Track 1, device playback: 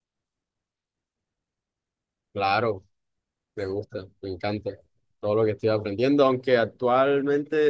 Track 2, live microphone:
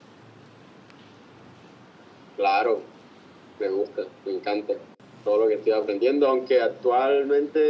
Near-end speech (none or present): none